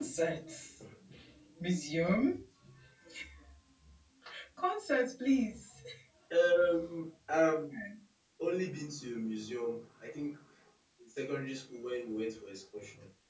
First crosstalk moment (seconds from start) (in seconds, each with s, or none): none